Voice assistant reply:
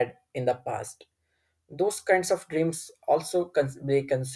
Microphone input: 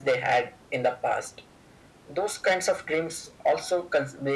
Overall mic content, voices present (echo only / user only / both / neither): echo only